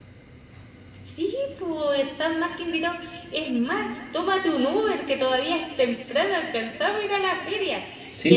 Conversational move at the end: listening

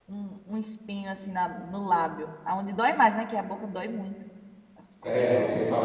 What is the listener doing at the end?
taking over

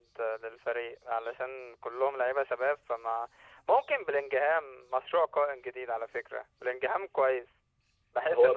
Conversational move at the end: taking over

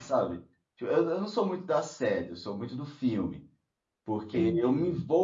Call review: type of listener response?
listening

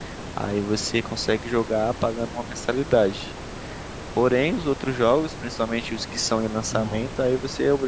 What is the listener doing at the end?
listening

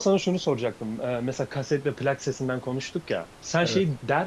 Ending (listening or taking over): listening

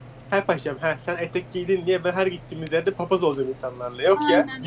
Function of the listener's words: taking over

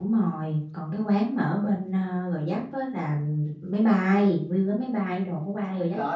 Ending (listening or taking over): taking over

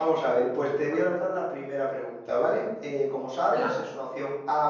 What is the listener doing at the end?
listening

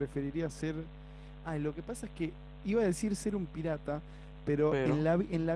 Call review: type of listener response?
listening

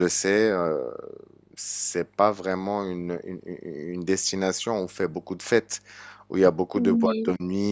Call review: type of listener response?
listening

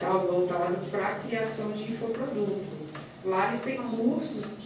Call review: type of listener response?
listening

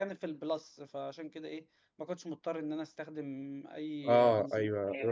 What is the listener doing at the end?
taking over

